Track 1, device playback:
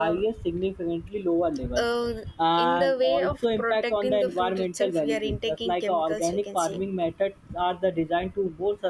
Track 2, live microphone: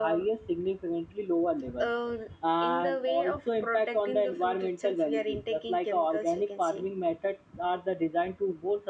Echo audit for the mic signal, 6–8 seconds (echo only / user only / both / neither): echo only